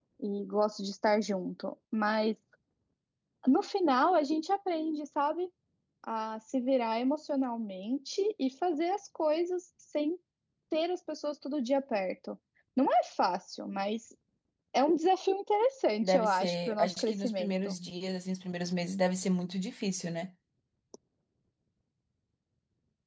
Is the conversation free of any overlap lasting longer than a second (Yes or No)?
No